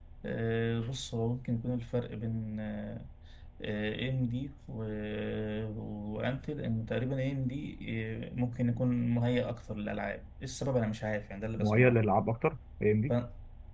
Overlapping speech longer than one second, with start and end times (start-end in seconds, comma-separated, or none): none